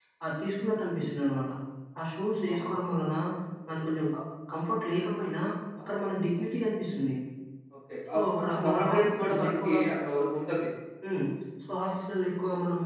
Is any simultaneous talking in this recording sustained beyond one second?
Yes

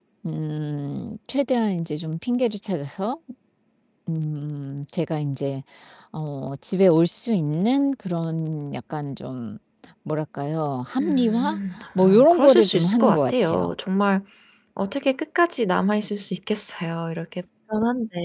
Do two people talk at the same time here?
Yes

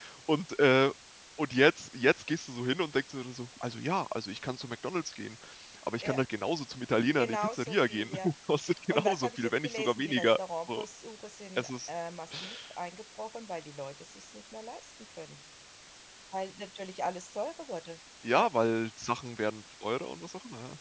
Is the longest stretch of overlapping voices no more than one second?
No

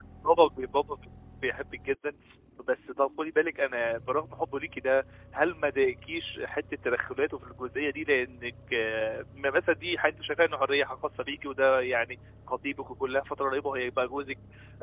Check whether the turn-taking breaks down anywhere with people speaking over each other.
No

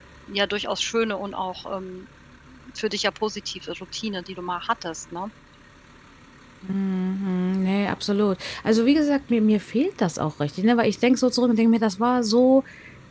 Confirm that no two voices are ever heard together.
Yes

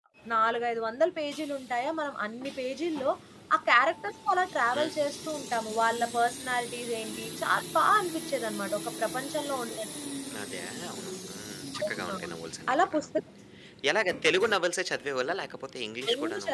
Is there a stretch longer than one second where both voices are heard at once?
No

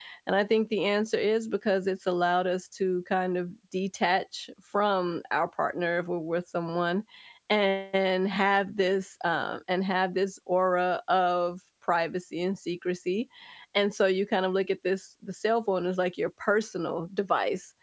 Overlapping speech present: No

